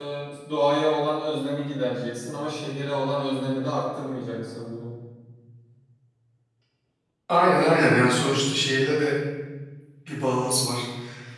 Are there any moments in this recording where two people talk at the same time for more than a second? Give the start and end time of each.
none

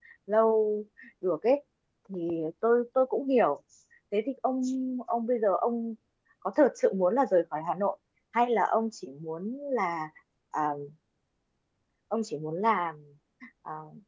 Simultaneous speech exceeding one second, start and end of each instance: none

